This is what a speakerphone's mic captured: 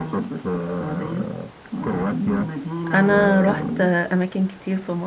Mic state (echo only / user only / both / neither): both